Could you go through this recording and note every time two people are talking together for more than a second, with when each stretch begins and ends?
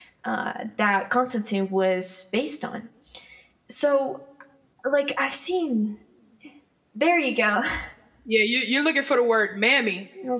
none

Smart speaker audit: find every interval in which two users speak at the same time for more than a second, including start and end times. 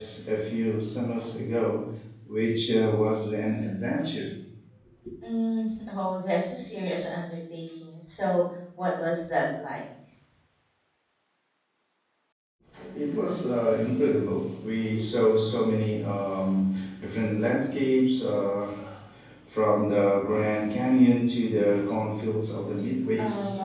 none

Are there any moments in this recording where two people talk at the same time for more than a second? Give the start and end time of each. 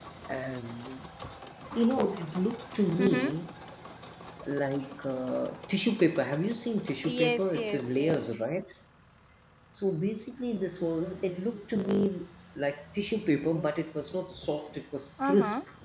7.1-8.4

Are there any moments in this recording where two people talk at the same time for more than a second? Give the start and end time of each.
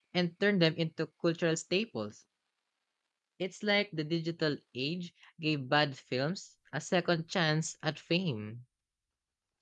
none

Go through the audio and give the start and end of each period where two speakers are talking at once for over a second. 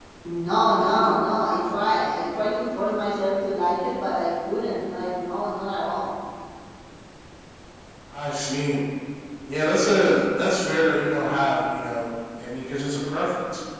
none

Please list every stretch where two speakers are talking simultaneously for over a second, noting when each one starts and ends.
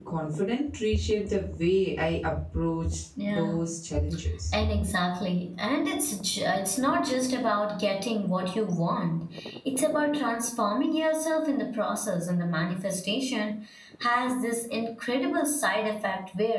none

